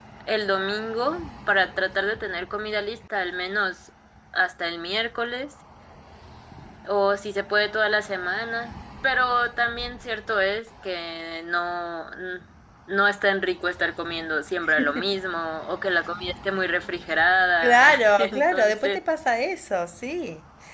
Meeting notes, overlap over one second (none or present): present